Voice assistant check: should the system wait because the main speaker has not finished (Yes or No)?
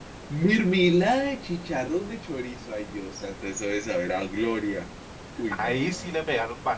No